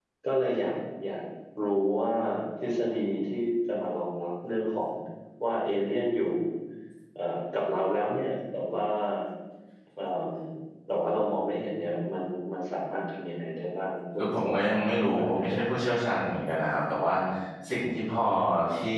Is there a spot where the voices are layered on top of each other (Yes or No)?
Yes